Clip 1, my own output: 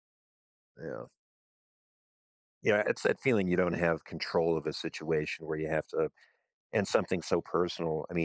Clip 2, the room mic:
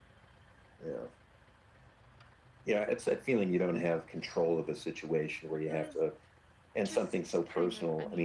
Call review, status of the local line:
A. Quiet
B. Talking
B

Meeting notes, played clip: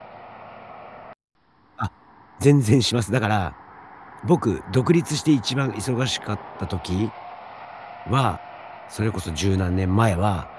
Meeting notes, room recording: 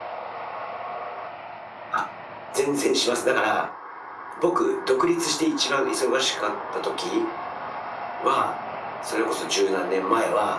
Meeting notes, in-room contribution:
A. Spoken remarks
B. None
B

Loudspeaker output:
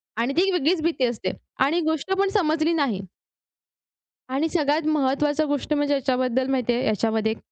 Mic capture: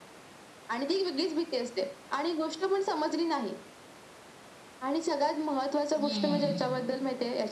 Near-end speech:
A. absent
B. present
B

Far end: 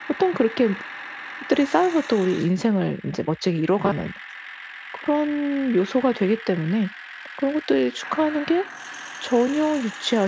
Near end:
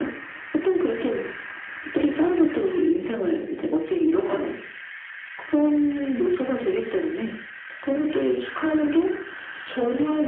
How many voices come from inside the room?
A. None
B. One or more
A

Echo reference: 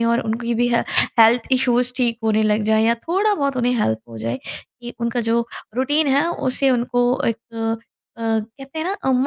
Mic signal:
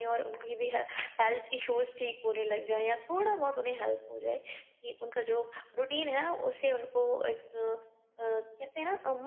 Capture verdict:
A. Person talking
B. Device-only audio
B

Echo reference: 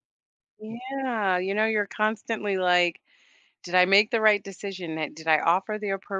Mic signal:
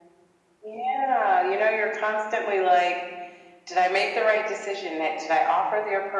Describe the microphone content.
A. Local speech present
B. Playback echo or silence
B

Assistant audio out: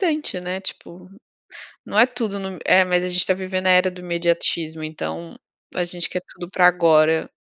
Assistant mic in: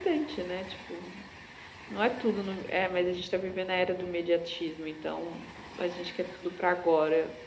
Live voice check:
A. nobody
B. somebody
A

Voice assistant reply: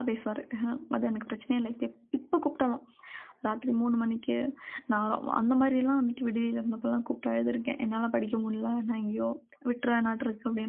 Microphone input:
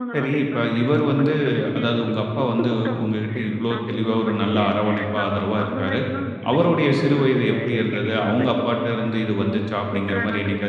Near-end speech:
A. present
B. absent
A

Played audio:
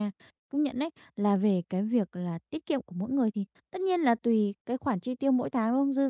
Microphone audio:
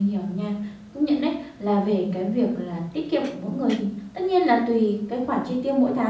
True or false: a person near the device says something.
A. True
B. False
B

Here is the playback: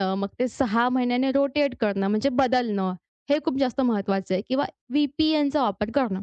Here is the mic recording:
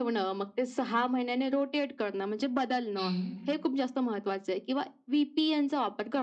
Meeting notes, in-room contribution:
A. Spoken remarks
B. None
A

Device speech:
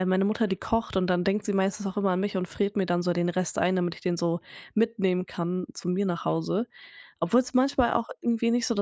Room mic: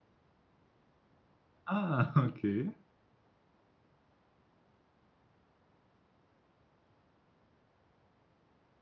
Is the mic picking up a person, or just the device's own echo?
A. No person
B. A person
B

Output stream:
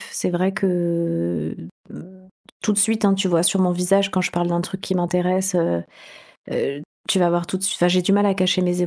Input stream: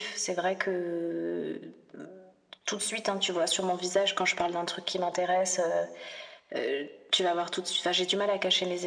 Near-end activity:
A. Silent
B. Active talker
A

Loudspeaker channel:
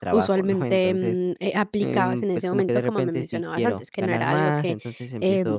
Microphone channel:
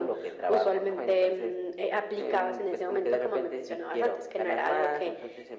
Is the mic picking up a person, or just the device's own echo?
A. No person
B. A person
A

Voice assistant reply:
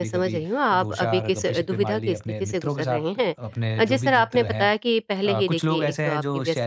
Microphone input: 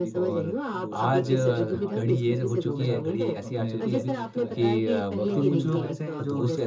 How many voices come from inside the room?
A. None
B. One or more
B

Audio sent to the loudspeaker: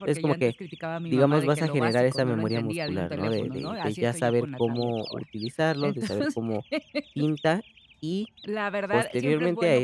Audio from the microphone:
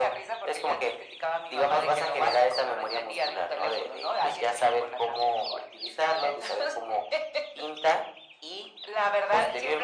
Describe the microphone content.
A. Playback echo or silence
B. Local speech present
A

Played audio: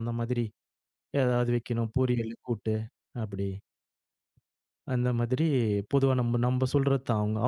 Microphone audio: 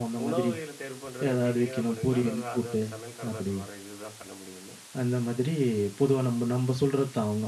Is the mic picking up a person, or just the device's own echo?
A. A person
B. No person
A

